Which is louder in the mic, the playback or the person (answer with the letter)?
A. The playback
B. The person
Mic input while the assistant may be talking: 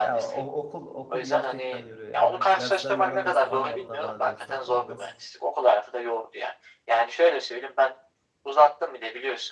A